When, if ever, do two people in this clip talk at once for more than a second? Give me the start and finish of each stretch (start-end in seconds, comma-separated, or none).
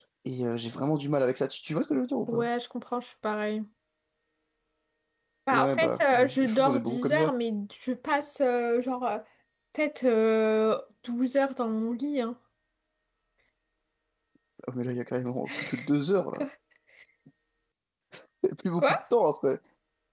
5.5-7.3